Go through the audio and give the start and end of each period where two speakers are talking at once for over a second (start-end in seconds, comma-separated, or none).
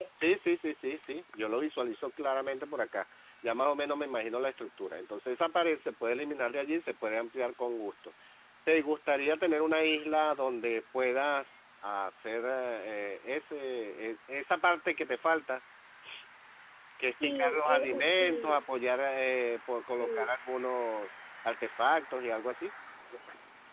17.2-18.6